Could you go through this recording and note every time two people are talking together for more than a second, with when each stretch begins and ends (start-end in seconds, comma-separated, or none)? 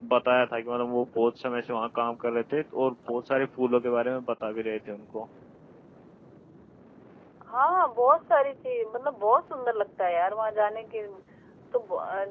none